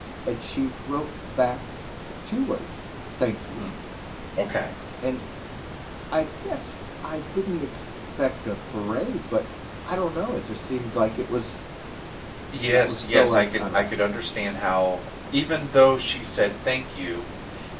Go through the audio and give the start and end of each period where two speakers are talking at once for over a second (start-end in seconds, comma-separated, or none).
12.7-13.9